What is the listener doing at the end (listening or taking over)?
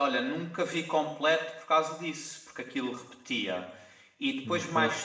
listening